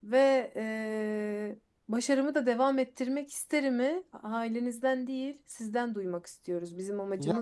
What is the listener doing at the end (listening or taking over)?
taking over